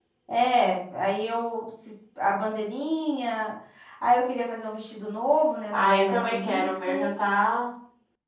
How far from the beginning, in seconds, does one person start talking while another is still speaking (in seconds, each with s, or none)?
5.7 s